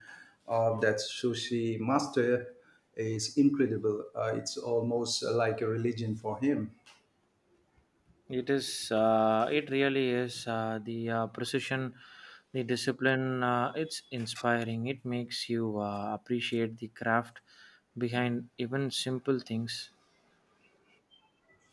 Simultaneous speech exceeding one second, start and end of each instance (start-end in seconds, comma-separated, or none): none